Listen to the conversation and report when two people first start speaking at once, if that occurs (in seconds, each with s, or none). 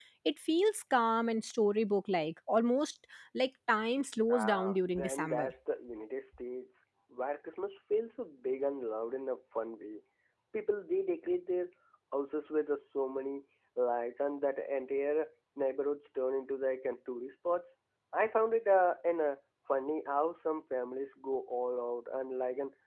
4.3 s